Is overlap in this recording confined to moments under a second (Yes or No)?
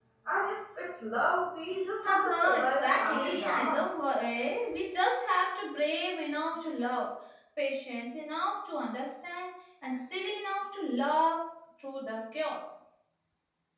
No